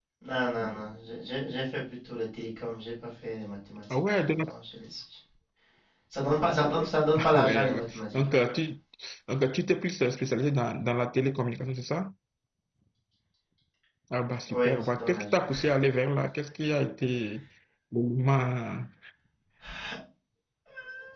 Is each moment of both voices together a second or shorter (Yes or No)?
No